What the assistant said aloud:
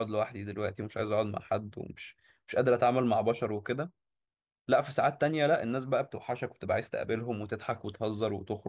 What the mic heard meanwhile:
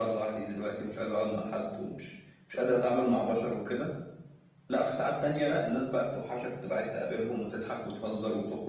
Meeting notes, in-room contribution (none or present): none